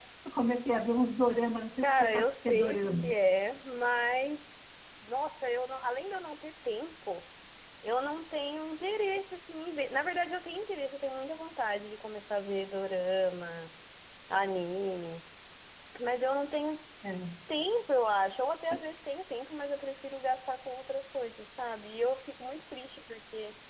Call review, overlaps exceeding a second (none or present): present